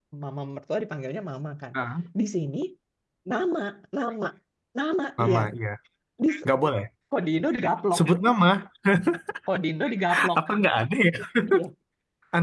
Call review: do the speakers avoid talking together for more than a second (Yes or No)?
Yes